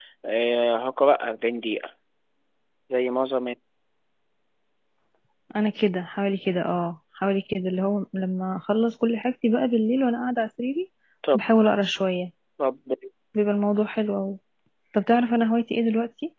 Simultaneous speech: No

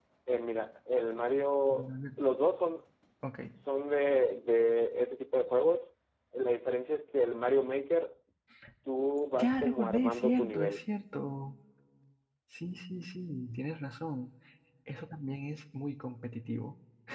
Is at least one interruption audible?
Yes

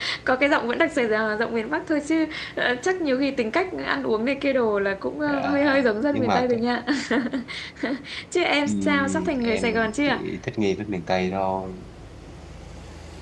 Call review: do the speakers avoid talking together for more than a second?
No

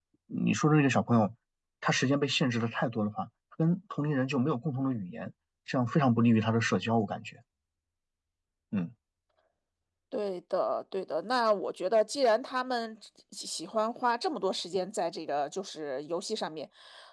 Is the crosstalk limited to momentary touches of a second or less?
Yes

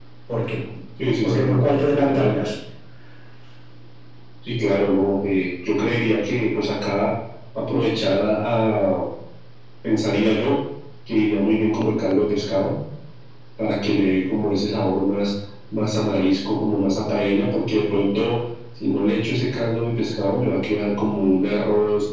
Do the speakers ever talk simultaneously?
Yes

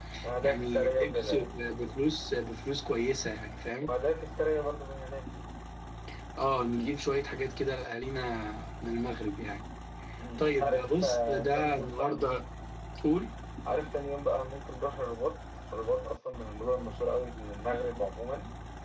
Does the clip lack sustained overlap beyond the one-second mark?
No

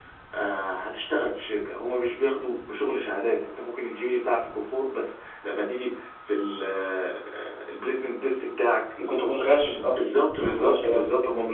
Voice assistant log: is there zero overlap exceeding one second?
No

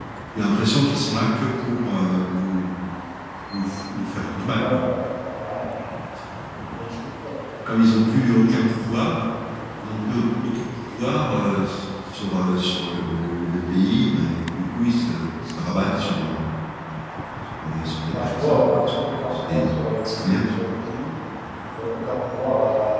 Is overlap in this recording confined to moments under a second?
No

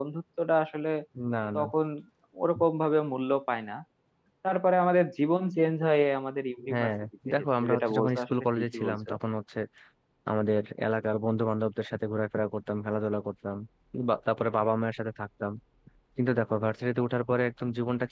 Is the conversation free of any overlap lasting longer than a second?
No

